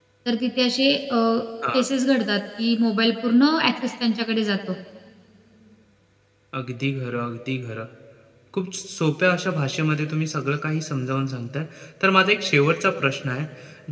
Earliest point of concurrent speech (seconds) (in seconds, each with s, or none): none